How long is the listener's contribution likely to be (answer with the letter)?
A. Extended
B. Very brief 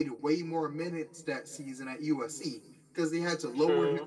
B